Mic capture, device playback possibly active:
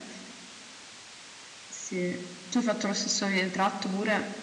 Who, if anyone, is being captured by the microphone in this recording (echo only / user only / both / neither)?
echo only